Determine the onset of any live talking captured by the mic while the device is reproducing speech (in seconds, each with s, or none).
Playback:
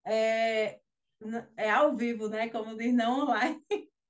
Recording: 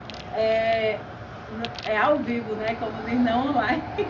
none